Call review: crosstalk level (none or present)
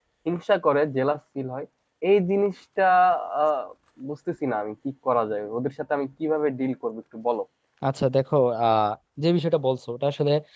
none